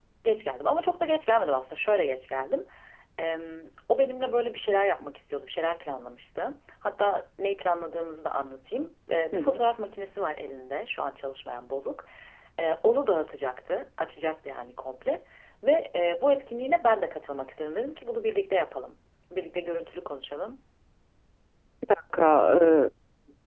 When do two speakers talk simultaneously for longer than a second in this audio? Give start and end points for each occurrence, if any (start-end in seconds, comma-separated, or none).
none